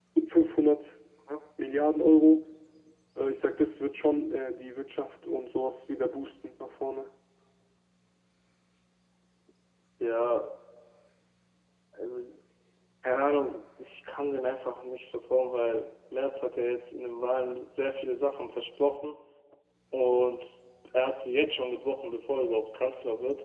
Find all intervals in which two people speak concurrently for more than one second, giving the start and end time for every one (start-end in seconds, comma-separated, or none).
none